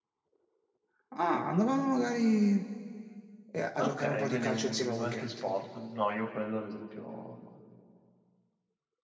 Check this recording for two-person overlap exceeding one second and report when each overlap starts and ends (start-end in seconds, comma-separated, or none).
3.8-5.3